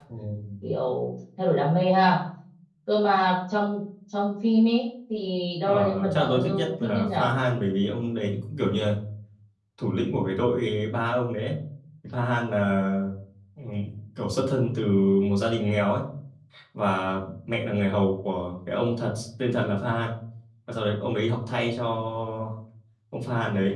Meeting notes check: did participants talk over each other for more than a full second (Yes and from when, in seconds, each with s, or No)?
Yes, from 5.7 s